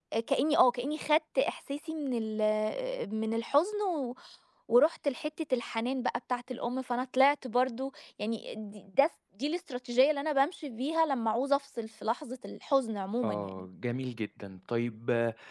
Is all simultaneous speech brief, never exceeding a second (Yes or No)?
Yes